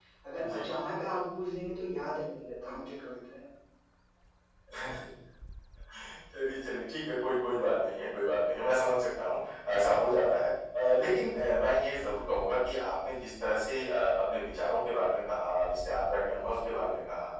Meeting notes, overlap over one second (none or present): none